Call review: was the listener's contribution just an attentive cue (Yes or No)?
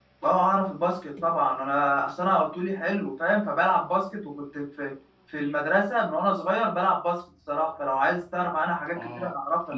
No